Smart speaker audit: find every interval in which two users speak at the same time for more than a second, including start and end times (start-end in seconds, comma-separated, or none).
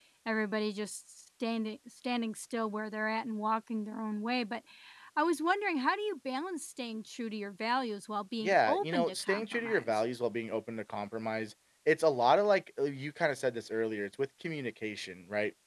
8.4-10.0